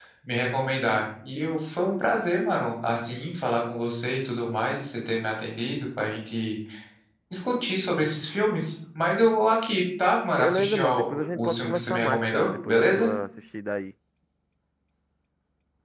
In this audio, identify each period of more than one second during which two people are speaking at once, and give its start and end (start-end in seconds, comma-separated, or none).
10.4-13.1